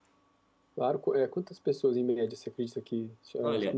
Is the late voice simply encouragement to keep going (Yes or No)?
No